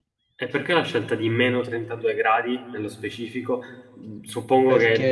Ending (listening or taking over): listening